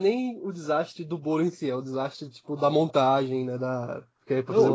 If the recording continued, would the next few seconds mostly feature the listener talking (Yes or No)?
Yes